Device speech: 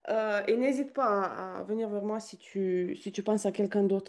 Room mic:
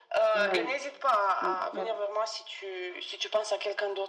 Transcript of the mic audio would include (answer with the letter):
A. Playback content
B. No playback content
A